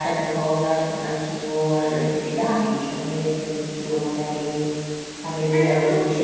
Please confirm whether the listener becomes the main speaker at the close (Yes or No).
Yes